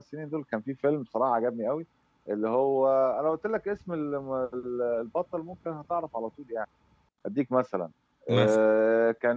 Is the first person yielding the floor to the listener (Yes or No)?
No